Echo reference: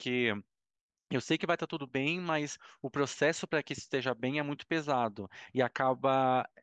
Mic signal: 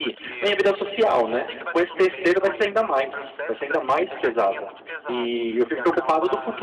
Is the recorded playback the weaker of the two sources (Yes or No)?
Yes